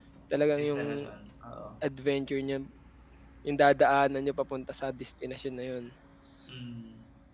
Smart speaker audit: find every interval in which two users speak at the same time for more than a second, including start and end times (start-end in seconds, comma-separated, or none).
none